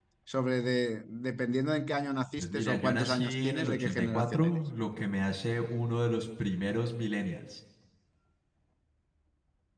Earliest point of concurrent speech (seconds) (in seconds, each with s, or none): 2.4 s